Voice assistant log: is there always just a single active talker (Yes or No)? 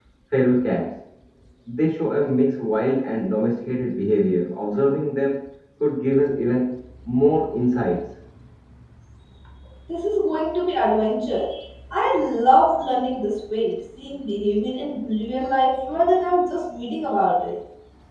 Yes